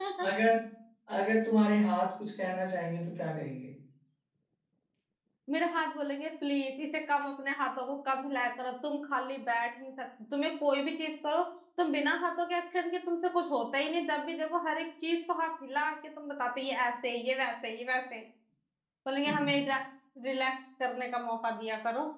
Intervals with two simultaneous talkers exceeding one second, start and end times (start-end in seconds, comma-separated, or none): none